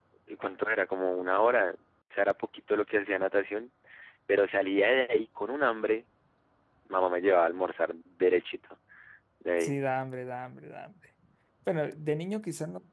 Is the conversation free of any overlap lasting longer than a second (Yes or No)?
Yes